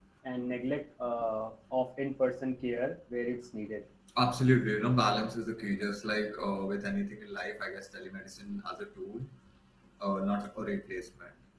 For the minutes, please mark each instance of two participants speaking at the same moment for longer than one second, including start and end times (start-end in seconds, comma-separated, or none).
none